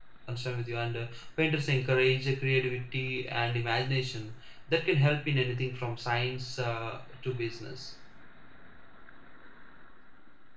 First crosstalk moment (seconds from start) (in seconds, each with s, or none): none